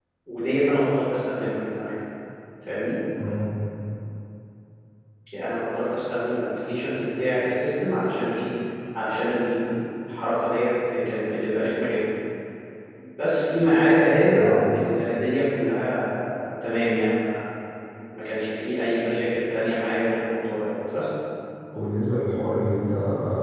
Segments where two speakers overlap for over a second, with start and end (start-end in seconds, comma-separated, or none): none